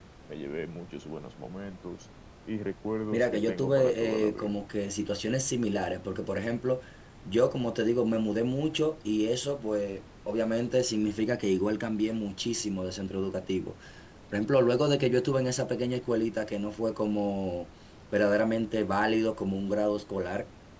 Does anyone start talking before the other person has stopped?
Yes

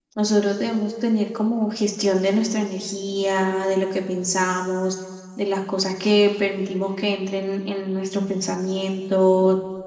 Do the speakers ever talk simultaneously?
No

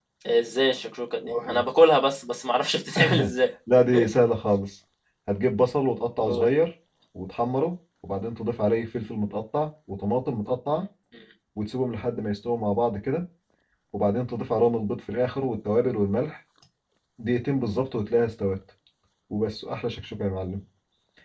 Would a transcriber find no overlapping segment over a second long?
Yes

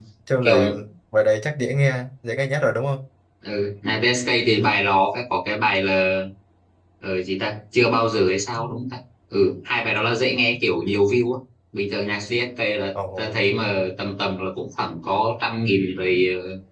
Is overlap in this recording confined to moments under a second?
Yes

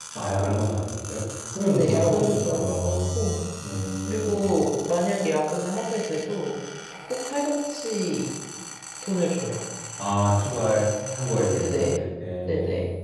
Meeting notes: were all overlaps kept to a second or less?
No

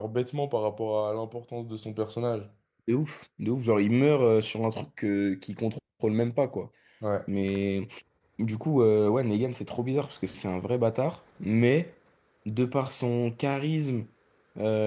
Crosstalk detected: No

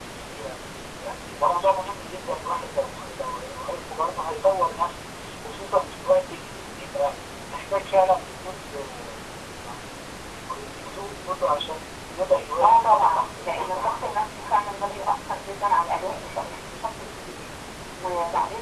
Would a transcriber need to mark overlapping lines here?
Yes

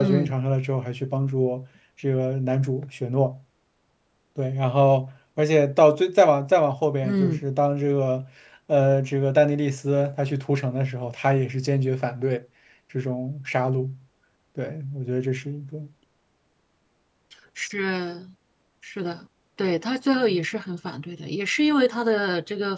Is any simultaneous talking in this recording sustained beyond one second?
No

